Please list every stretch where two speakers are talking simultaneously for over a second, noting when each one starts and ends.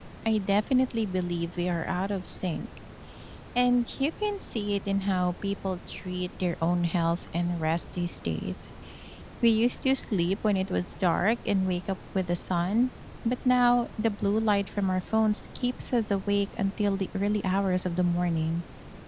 none

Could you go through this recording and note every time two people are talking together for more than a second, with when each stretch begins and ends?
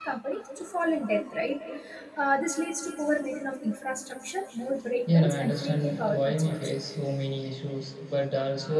5.1-6.7

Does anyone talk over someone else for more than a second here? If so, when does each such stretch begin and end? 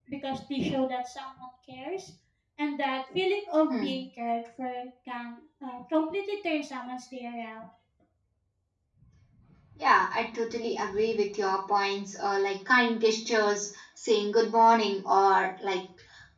none

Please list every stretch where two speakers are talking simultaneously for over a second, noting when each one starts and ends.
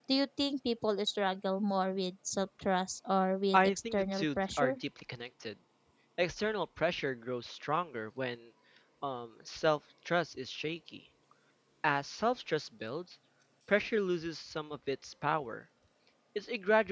3.5-4.8

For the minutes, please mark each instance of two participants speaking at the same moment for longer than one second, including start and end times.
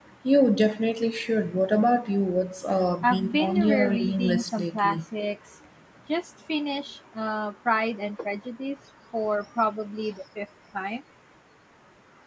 3.0-5.0

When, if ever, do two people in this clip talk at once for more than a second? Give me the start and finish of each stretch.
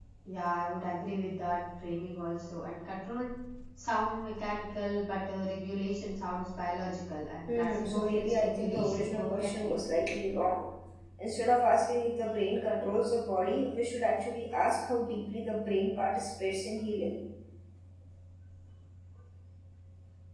7.5-9.8

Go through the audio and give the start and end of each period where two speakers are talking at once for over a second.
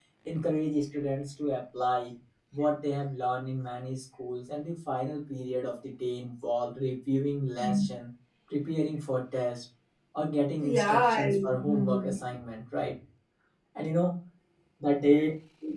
10.6-12.1

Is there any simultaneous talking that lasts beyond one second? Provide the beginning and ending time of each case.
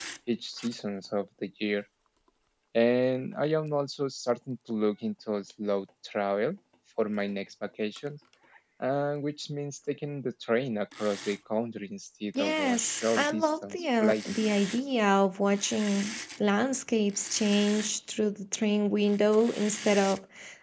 12.4-14.2

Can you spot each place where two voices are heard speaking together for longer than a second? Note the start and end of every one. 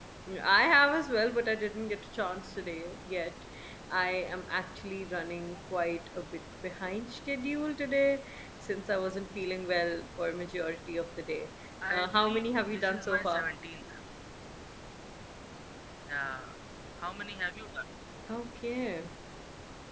11.9-13.5

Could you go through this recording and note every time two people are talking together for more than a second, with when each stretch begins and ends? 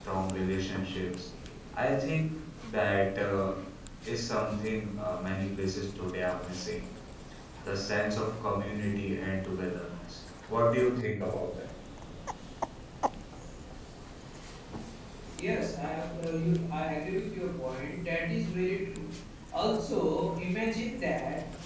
none

